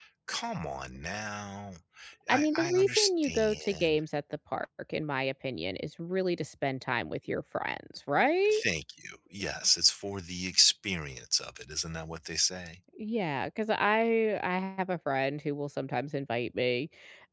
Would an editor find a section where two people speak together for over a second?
Yes, from 2.3 s

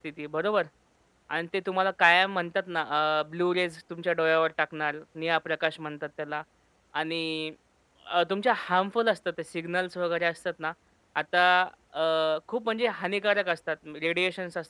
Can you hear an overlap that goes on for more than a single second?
No

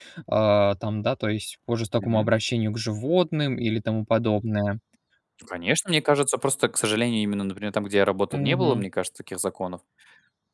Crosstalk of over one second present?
No

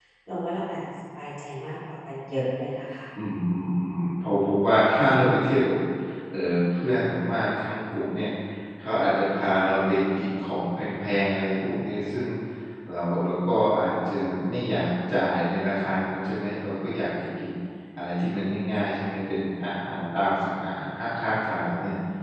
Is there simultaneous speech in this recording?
No

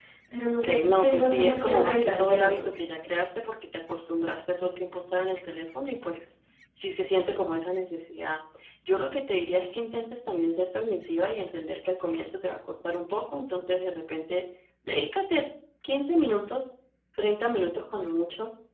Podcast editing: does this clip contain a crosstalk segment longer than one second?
Yes, from 0.6 s

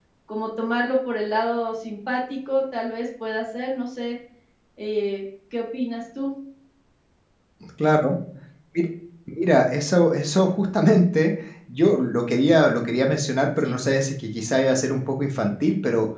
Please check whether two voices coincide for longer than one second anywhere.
No

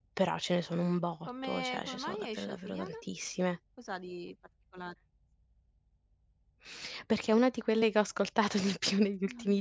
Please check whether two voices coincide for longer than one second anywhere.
Yes, from 1.3 s

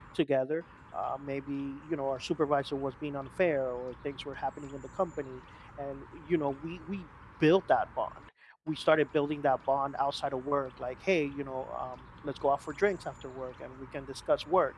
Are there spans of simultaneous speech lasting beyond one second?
No

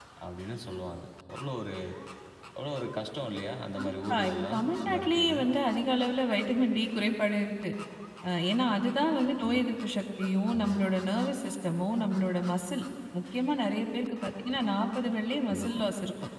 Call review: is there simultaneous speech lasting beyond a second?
Yes, from 3.8 s

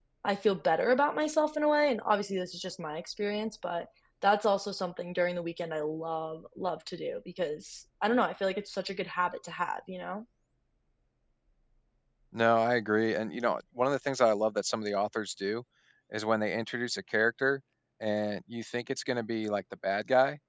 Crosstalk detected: No

